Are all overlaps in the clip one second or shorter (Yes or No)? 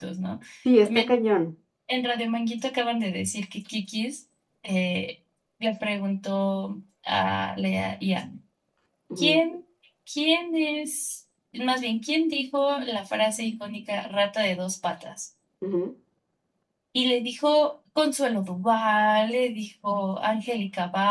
Yes